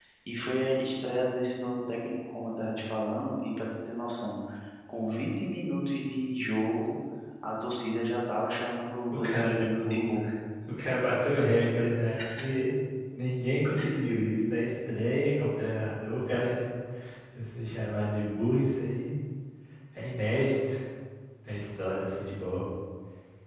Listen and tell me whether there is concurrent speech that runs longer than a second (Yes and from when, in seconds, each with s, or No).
Yes, from 9.1 s